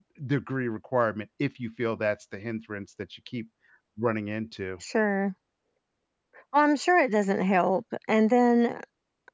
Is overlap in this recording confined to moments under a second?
Yes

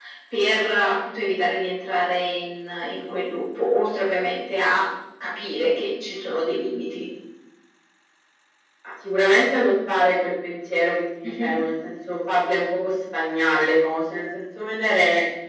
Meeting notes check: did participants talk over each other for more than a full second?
No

